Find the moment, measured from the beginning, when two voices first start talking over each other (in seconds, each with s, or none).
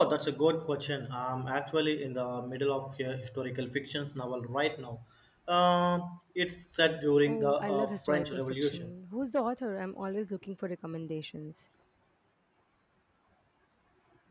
7.3 s